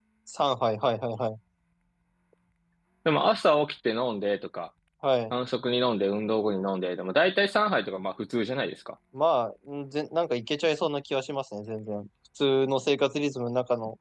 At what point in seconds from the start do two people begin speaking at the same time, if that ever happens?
none

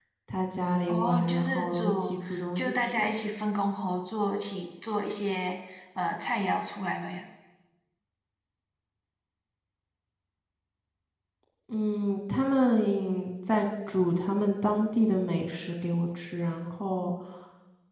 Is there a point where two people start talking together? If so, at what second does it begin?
1 s

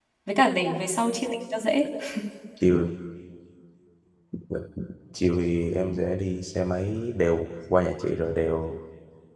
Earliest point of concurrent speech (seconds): none

